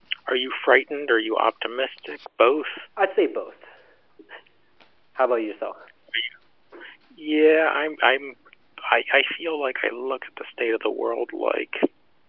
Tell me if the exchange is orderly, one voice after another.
Yes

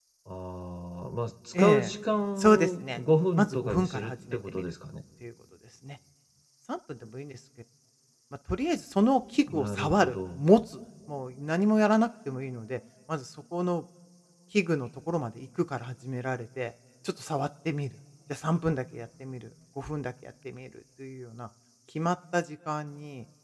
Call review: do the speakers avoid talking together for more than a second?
No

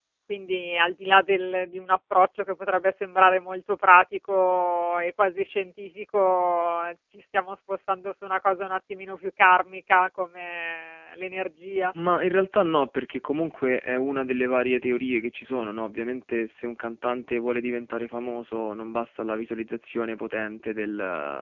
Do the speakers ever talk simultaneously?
No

